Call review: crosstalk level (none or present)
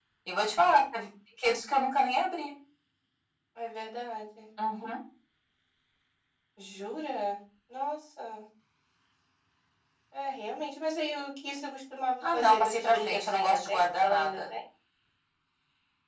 present